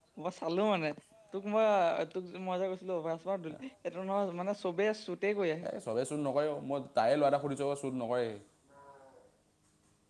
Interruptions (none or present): none